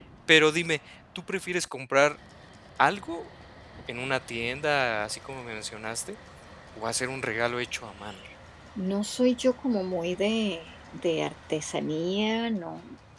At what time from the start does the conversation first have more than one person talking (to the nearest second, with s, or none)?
none